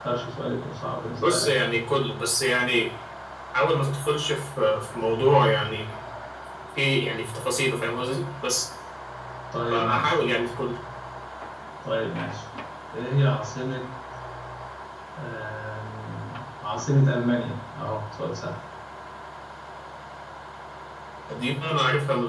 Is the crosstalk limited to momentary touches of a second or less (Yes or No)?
Yes